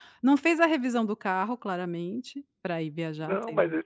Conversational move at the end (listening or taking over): taking over